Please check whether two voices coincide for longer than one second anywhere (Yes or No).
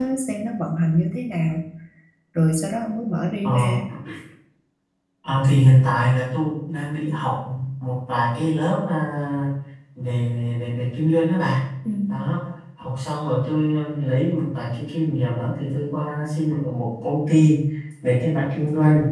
No